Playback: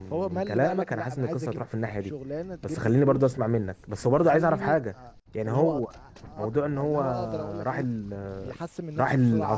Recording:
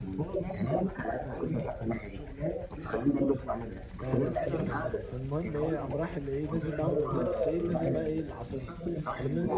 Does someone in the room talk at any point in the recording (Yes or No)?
Yes